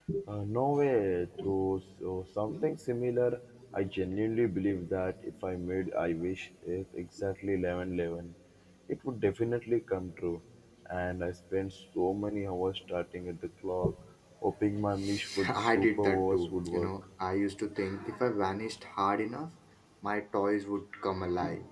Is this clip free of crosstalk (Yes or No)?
No